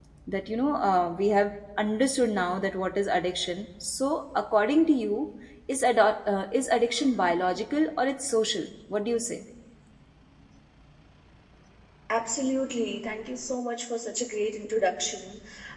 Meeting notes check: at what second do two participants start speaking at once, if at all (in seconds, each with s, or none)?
none